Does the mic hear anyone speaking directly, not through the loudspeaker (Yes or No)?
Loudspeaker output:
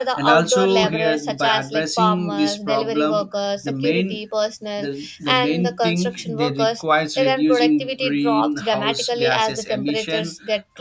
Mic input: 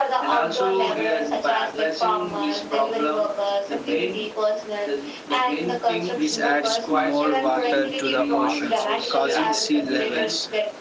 Yes